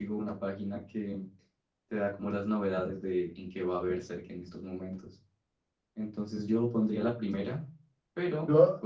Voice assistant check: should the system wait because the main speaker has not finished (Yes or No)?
Yes